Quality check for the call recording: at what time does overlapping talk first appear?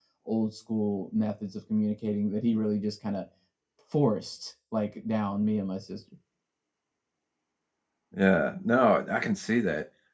none

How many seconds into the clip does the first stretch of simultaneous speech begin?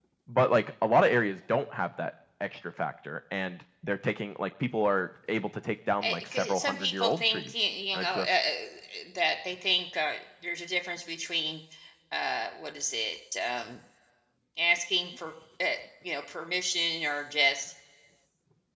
6.0 s

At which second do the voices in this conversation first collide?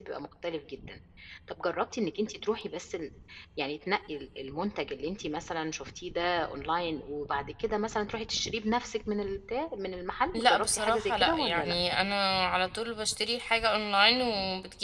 10.3 s

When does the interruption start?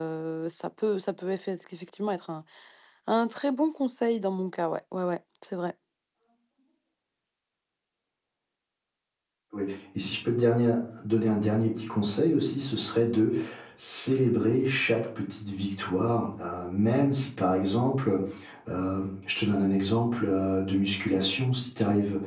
none

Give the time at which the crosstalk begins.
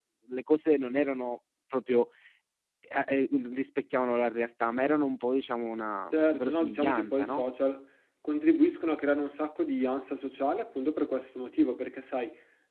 6.1 s

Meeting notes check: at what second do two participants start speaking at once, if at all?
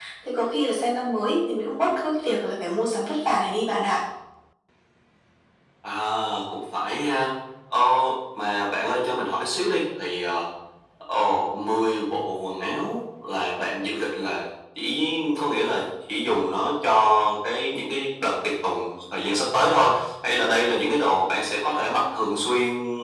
none

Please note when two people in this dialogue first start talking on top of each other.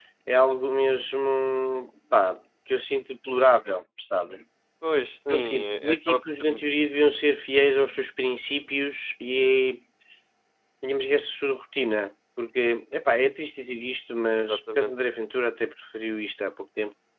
5.3 s

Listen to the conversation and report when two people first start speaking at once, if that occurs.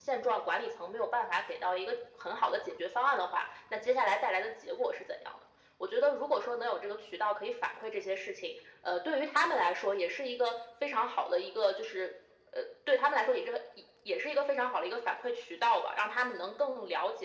none

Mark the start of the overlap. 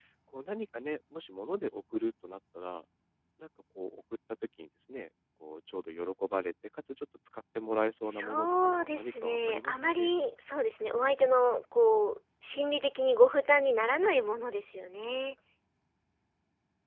8.1 s

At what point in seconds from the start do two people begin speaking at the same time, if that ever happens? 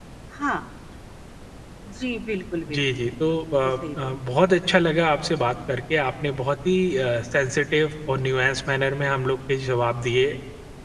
2.7 s

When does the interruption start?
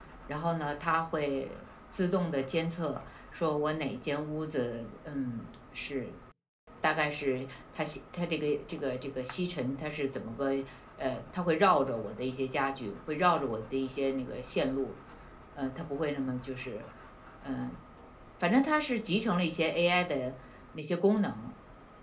none

